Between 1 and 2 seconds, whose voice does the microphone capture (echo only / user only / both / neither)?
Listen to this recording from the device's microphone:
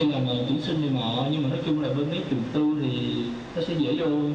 echo only